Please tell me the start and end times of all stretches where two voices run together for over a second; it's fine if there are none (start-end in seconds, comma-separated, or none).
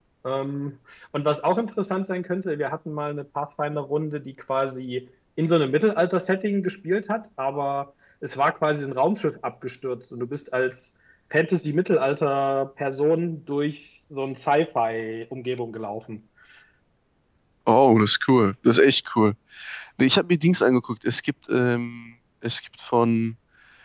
none